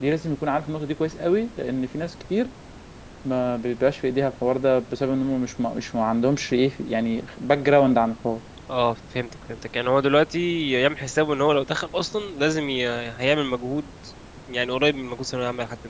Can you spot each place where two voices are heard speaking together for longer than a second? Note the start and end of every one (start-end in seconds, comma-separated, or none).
none